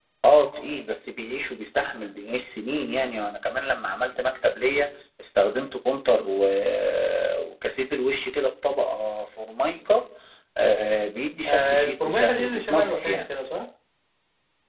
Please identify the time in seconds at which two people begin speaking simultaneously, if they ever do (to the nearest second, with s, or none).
11 s